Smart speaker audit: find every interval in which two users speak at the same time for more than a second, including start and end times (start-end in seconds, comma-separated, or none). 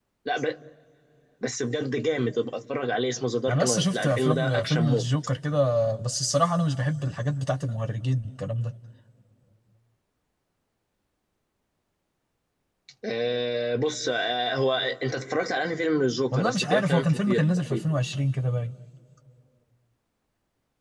3.5-5.1, 16.3-17.9